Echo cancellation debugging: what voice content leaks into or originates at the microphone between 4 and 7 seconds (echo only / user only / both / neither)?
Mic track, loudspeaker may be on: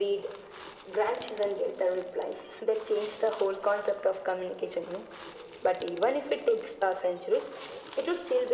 echo only